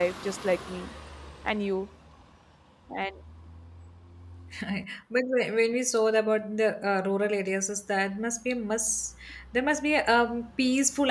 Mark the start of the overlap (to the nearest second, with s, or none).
none